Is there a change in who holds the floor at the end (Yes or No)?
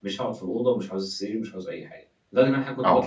No